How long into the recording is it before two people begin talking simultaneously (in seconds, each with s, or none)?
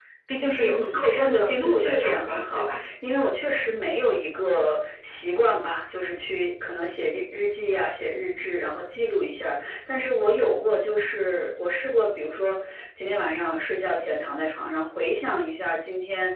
0.6 s